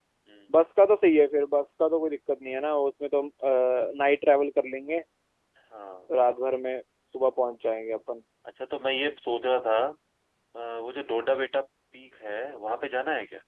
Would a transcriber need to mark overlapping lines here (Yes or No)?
No